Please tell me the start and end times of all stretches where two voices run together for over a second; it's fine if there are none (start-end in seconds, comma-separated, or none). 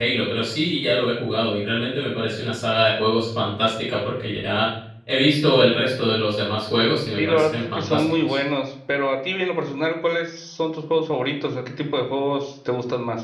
7.2-8.4